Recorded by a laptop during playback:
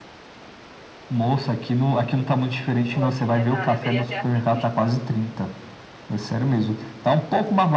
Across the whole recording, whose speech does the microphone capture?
both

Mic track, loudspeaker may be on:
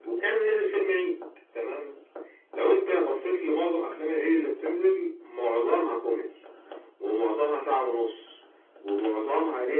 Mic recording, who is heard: echo only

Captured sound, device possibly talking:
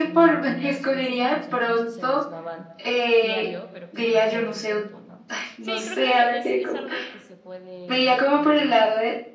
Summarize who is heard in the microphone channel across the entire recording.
both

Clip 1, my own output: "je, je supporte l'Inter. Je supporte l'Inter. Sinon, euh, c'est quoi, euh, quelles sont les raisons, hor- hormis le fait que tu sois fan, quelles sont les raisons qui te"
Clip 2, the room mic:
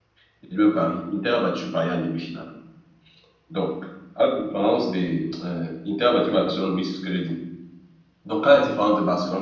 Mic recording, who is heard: user only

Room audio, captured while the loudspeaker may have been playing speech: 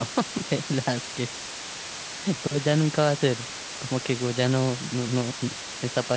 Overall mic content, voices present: user only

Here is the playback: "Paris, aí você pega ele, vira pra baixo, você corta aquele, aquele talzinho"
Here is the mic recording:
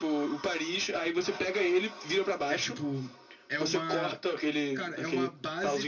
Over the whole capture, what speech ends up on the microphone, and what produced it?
both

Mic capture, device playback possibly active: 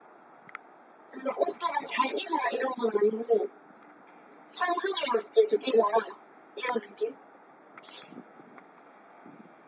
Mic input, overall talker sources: echo only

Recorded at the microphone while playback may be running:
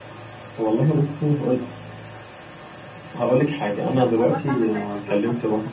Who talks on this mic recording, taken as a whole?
both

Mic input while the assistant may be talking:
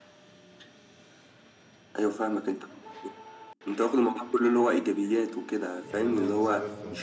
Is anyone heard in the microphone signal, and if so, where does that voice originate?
both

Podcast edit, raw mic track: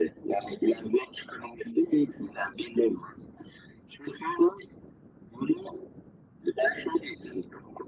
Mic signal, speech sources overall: echo only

